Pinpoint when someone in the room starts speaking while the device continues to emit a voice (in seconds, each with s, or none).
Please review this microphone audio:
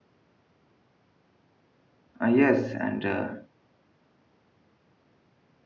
2.2 s